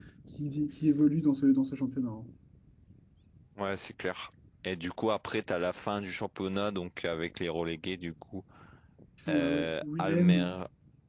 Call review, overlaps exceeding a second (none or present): present